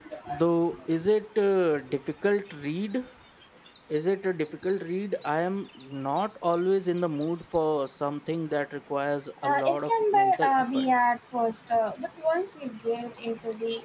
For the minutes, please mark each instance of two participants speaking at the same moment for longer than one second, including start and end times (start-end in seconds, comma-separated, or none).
9.4-10.8